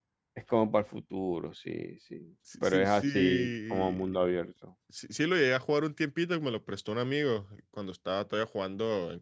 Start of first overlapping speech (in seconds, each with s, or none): 2.5 s